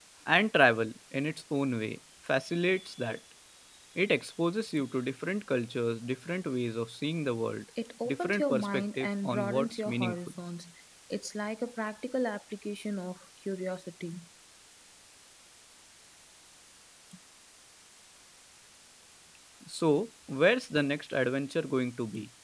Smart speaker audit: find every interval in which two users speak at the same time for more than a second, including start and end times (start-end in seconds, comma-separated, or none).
8.1-10.2